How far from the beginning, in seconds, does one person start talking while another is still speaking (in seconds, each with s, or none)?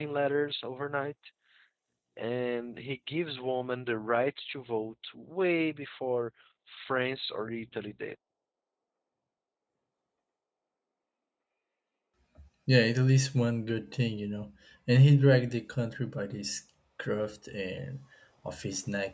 none